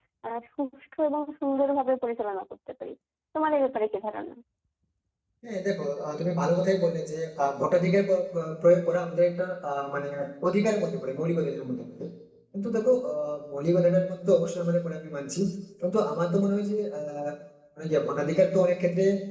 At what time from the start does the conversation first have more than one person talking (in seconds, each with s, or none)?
none